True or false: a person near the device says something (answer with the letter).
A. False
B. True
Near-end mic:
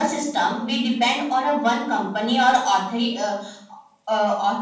A